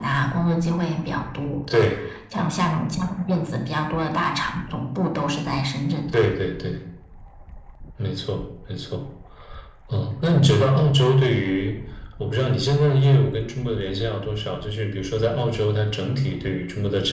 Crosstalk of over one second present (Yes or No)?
No